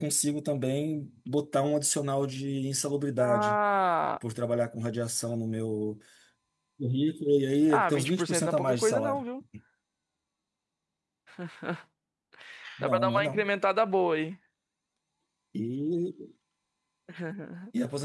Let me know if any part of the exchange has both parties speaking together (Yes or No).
Yes